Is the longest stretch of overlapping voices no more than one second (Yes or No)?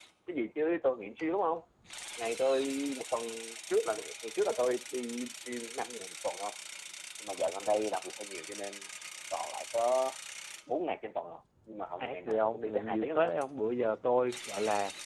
No